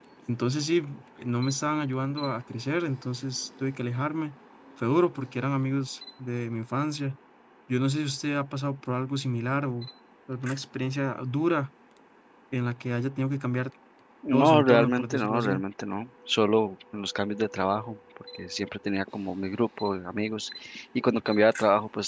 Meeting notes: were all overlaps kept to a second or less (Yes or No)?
No